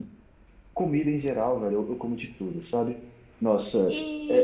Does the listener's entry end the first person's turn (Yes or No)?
No